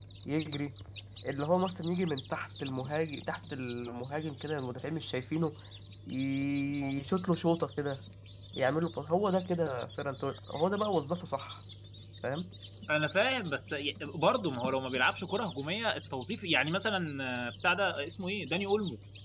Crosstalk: none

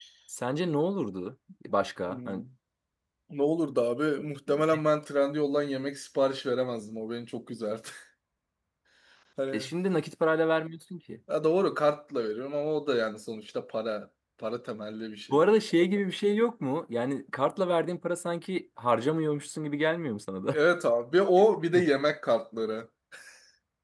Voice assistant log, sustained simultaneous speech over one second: none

